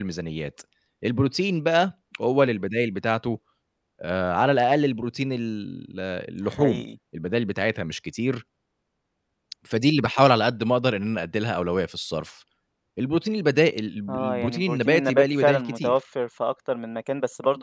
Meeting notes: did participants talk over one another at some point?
Yes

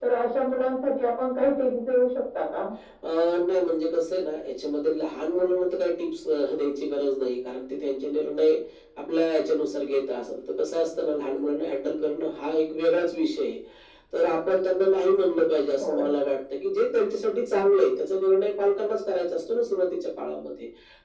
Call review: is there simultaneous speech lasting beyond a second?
No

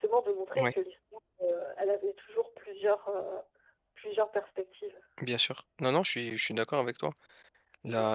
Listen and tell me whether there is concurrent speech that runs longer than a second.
No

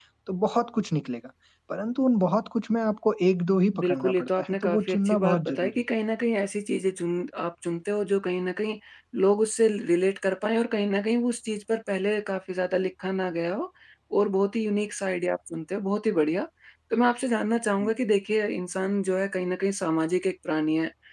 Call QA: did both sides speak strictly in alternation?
No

